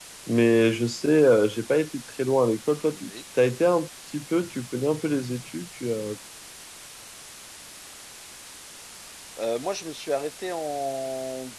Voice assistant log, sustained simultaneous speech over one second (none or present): none